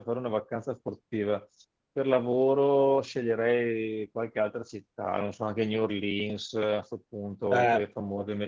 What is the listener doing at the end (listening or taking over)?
listening